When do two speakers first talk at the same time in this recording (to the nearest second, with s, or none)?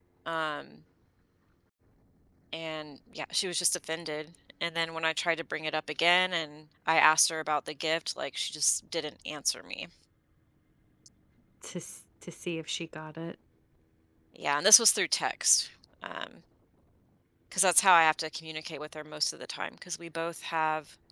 none